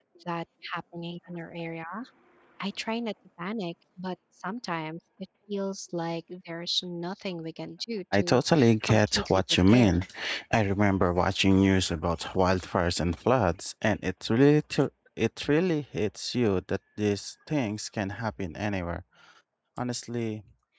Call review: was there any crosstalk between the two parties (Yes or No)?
Yes